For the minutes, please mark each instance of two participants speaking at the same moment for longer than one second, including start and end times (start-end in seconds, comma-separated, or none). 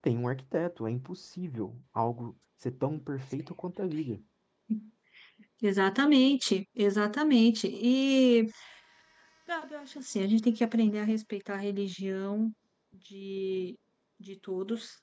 none